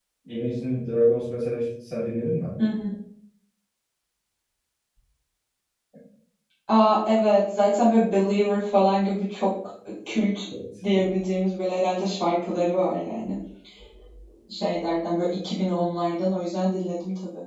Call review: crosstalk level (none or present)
none